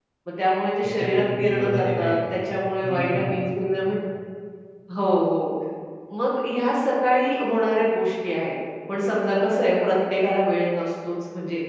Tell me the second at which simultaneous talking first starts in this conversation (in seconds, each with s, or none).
1.0 s